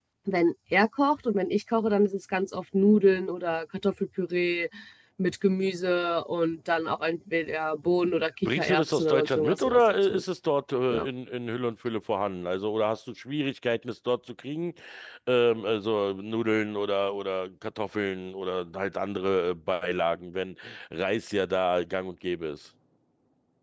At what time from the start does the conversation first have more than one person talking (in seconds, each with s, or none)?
8.4 s